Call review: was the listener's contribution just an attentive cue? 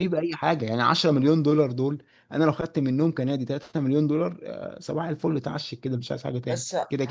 No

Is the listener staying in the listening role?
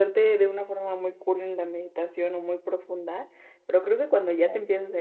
Yes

